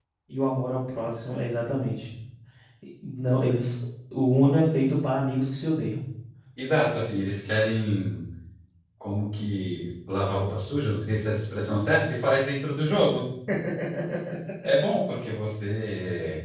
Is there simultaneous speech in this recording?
No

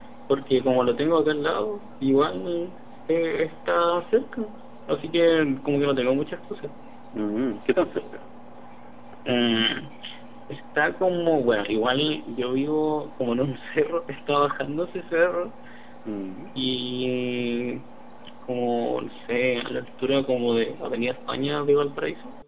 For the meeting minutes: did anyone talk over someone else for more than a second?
No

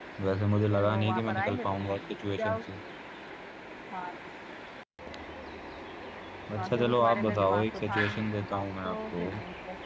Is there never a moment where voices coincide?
No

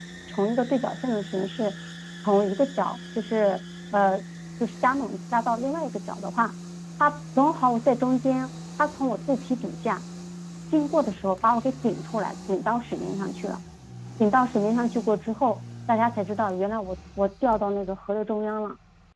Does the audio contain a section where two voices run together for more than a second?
No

